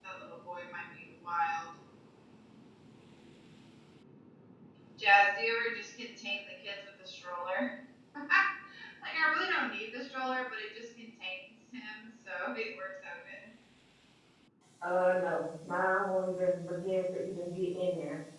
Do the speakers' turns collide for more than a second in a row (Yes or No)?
No